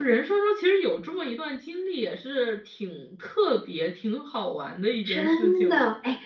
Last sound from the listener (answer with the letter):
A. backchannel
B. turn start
B